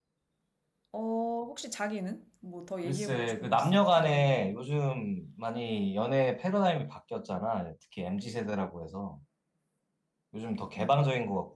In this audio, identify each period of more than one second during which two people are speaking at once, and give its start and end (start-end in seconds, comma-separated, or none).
2.8-4.5